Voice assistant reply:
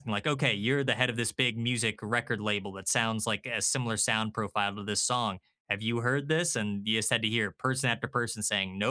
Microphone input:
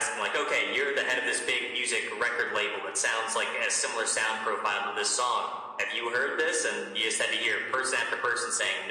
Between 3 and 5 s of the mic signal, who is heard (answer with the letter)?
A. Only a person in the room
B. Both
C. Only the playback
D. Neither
C